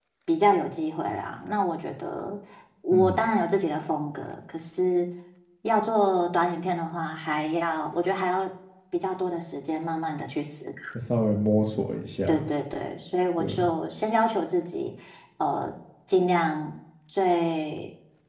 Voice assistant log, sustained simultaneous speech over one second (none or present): none